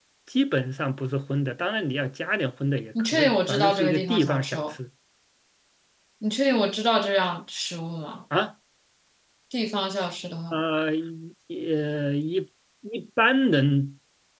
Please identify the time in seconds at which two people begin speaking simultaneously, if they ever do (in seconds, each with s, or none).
3.0 s